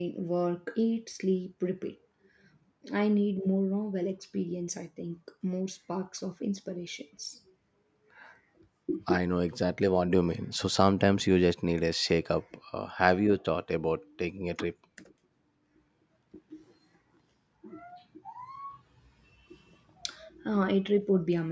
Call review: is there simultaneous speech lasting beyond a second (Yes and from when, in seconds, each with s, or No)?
No